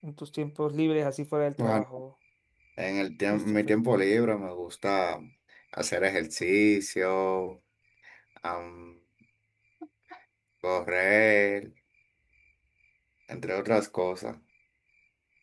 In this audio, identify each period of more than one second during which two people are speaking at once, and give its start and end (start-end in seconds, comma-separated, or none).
none